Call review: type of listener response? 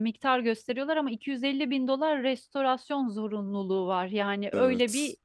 listening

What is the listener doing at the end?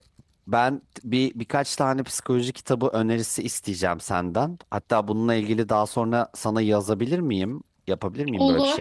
taking over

